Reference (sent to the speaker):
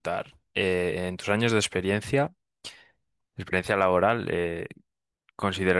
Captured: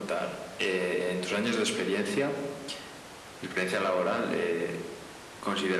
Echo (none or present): present